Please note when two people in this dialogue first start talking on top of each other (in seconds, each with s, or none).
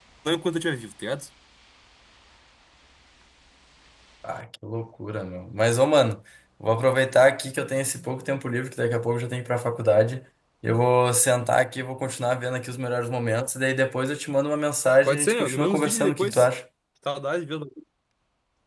15.1 s